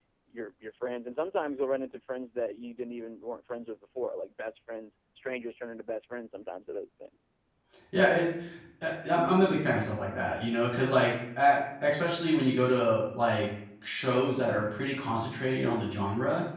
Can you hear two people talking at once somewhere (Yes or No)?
No